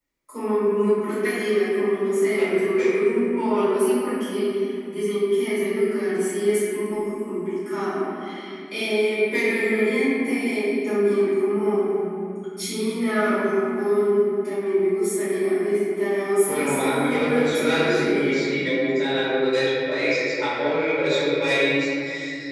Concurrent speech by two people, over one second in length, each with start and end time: 16.5-18.2

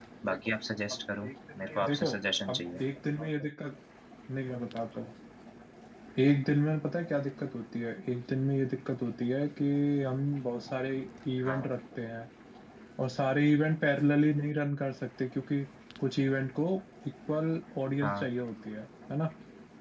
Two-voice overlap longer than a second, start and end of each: none

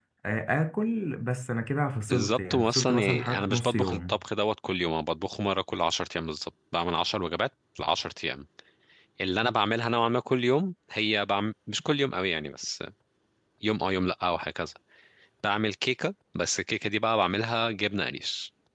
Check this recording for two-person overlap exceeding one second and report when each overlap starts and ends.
2.1-4.2

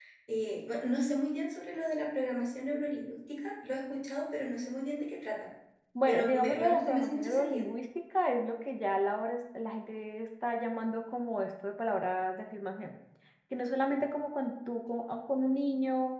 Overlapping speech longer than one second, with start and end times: 6.1-7.6

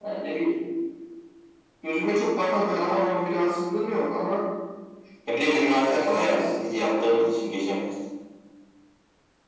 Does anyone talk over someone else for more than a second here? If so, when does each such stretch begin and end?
5.5-7.2

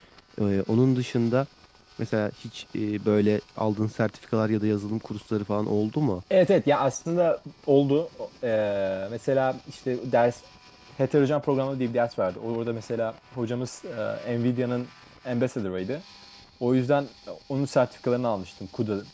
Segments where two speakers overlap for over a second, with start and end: none

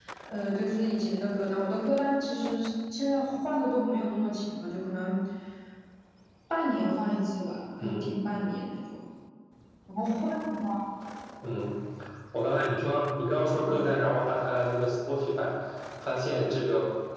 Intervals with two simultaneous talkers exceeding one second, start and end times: none

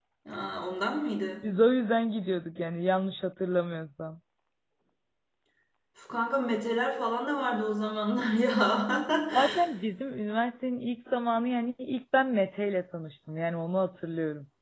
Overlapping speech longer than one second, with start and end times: none

